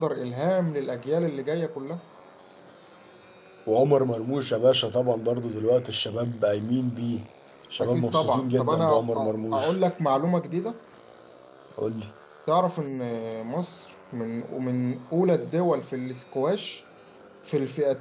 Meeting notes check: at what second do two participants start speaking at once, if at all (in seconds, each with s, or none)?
7.8 s